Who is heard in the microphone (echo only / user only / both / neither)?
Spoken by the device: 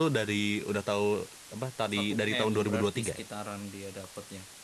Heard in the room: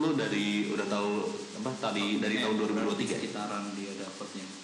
echo only